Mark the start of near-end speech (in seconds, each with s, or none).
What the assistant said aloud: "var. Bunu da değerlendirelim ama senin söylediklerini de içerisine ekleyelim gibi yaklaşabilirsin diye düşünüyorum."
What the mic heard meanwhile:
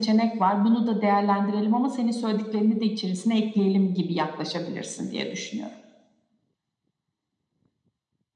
none